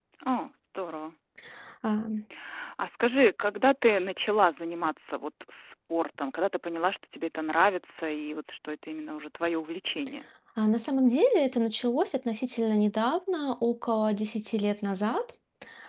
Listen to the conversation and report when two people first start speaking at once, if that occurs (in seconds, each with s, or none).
none